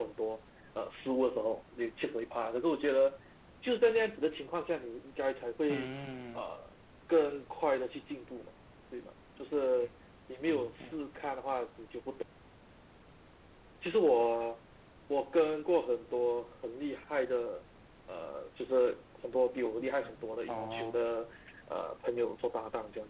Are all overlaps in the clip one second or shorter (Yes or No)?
No